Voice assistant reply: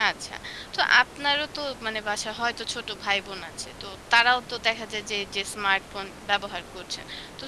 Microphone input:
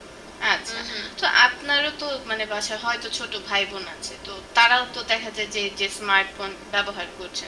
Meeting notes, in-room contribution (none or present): present